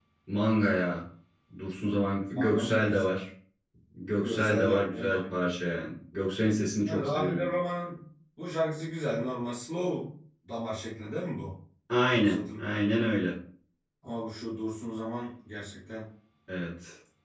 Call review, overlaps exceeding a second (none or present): present